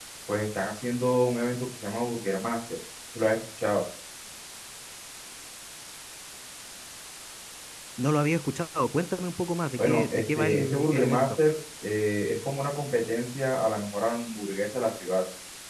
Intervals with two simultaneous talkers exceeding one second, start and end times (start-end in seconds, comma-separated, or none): 9.8-11.4